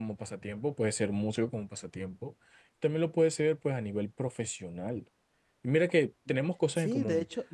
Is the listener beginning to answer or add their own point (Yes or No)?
Yes